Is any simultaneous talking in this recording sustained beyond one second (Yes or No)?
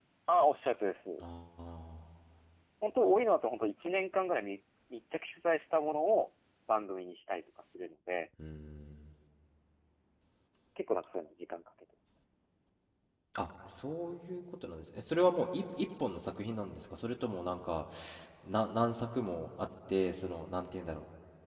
No